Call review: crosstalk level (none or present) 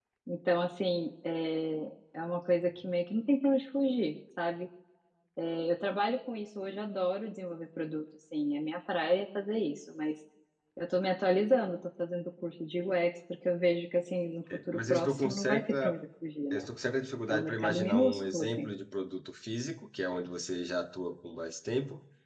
present